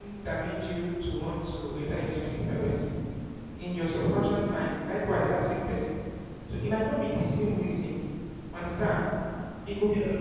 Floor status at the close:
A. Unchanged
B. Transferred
A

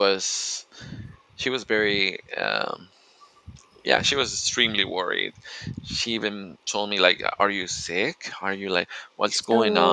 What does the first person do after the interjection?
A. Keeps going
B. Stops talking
A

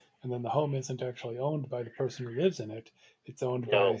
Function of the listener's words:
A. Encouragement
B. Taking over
A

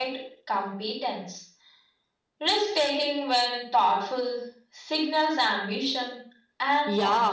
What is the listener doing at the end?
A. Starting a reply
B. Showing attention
A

